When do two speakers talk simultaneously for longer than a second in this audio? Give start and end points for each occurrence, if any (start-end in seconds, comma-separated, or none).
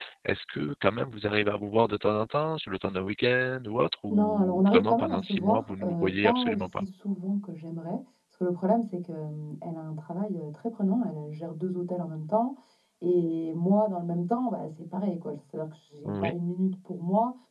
4.1-6.8